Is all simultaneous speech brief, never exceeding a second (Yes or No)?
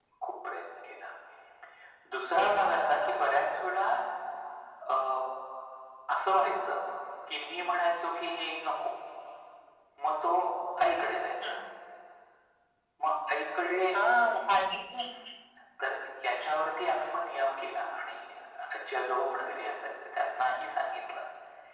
Yes